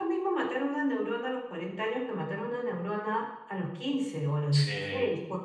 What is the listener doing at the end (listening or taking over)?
listening